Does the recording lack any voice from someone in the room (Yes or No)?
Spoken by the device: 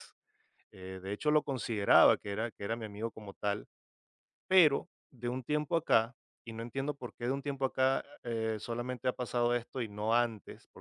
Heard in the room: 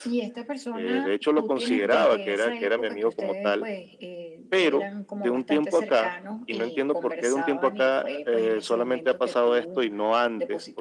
No